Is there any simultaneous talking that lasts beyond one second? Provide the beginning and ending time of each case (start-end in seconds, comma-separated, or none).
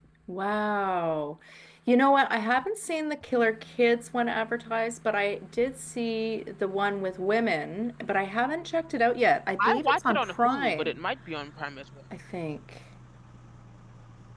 9.6-11.0